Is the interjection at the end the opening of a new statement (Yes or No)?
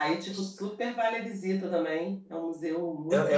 Yes